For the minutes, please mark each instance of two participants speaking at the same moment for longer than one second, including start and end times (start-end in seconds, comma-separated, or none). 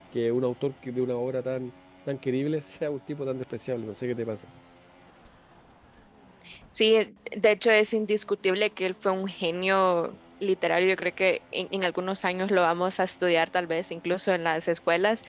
none